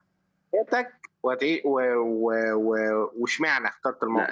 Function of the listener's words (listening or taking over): taking over